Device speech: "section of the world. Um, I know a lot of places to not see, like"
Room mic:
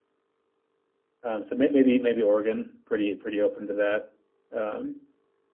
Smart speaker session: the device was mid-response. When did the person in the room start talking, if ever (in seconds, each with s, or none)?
1.2 s